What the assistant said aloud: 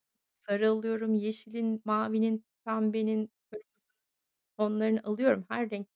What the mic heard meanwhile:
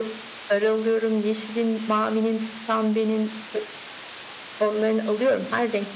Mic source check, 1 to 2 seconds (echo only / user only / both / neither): echo only